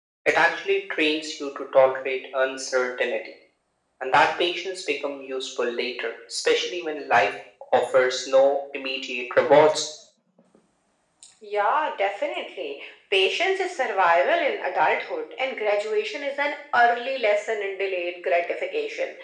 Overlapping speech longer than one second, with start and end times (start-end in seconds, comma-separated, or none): none